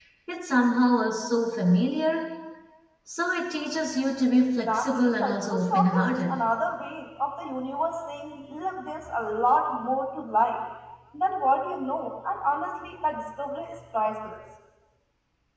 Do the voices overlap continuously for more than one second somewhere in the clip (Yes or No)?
Yes